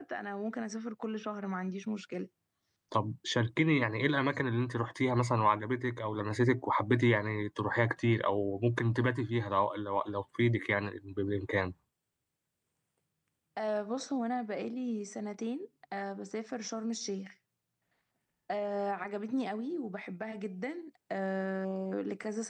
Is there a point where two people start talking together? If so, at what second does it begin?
none

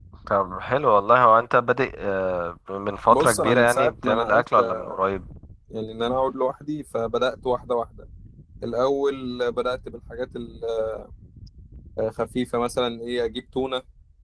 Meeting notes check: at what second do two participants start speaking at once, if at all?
3.1 s

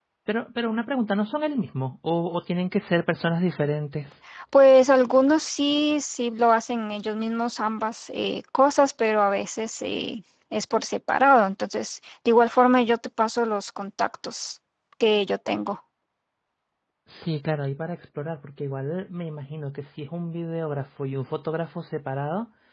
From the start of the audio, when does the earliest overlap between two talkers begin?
none

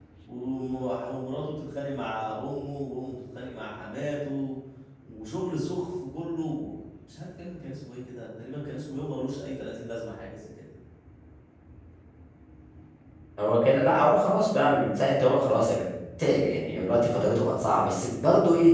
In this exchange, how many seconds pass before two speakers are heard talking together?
none

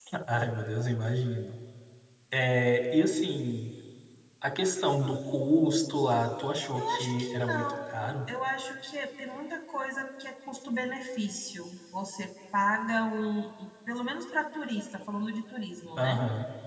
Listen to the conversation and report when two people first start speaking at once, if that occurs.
6.7 s

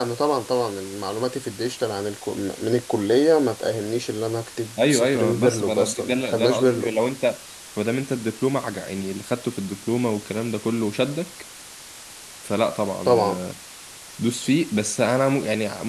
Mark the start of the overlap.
4.9 s

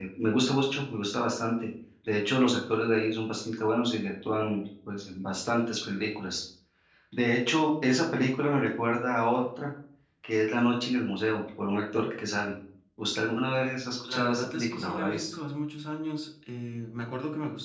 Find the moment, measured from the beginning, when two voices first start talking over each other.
14.0 s

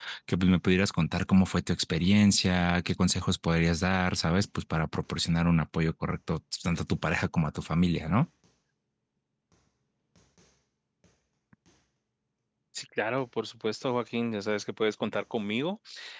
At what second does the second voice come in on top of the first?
none

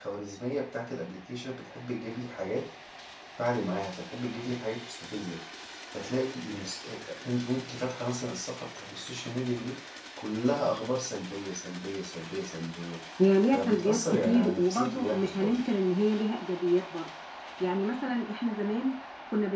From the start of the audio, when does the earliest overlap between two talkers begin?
13.5 s

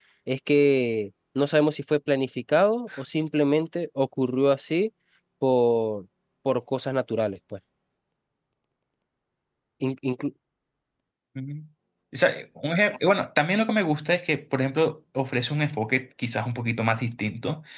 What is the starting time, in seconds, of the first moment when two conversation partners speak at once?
none

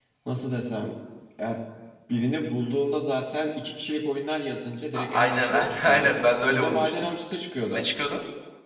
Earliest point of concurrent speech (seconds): 4.9 s

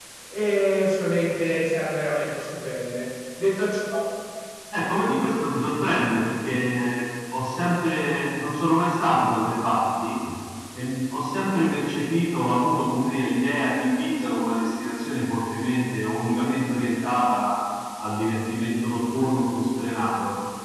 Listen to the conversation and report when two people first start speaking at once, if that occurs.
none

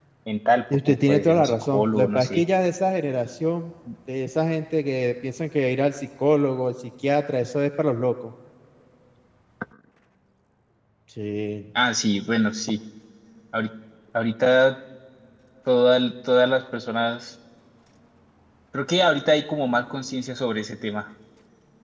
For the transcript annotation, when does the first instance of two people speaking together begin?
0.9 s

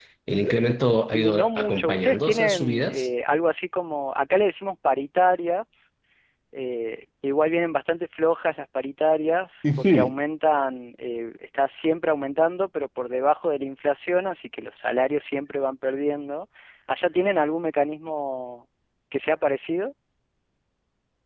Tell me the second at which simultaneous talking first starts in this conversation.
1.1 s

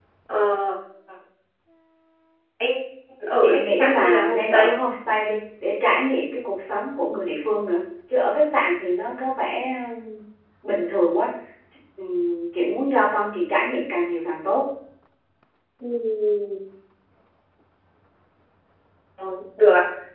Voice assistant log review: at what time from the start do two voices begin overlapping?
3.4 s

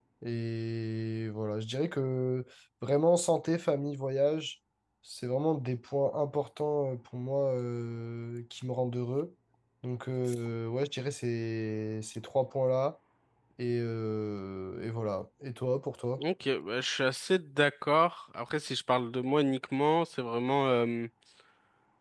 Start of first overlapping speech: none

